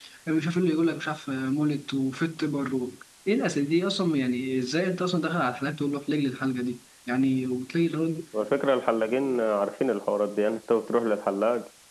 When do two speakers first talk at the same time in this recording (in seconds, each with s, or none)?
none